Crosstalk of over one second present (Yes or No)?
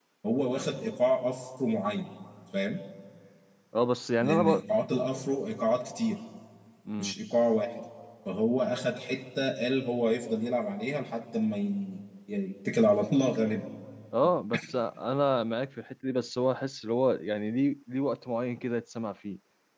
No